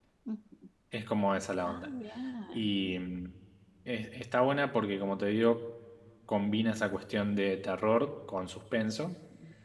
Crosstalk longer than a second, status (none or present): none